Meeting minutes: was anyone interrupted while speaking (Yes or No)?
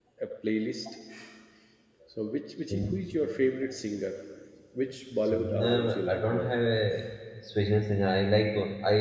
Yes